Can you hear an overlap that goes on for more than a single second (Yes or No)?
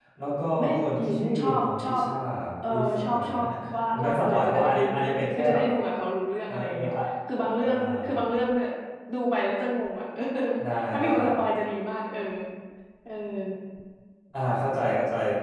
Yes